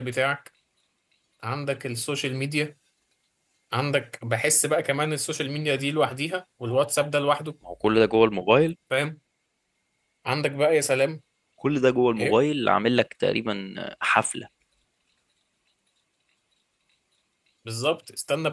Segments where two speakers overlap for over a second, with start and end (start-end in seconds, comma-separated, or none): none